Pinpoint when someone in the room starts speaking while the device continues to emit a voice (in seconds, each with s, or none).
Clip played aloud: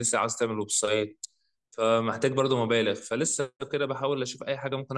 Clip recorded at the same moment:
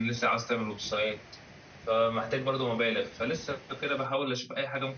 none